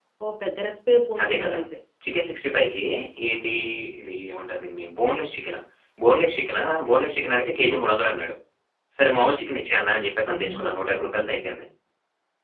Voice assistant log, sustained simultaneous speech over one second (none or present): none